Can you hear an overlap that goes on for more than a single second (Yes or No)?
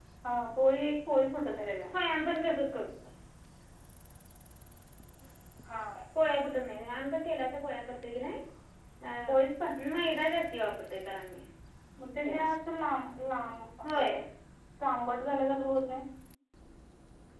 No